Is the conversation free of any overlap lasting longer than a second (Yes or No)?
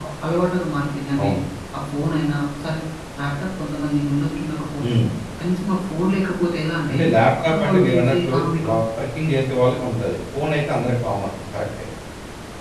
No